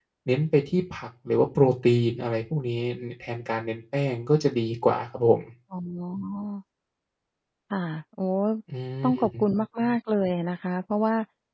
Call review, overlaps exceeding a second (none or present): none